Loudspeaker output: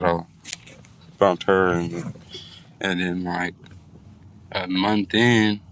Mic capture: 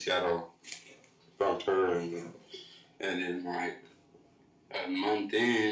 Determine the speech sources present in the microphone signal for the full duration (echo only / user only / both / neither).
echo only